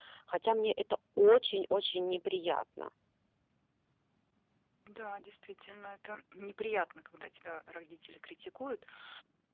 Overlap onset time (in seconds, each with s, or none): none